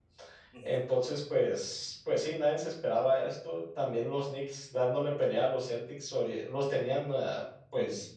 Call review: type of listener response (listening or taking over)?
listening